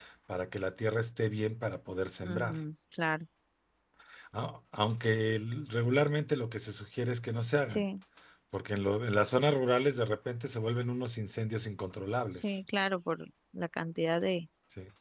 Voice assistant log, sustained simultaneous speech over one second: none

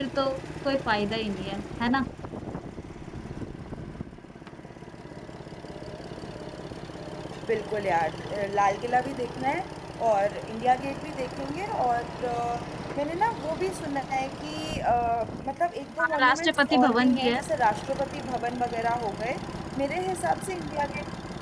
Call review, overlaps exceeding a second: present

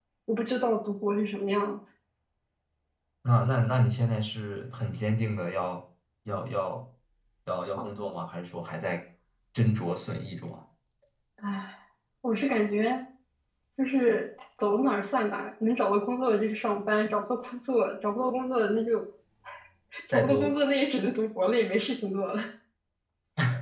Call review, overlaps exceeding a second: none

